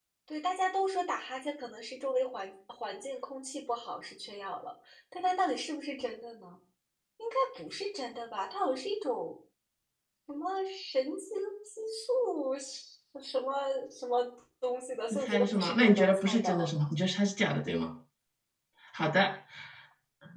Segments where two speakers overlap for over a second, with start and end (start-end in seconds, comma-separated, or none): 15.1-16.7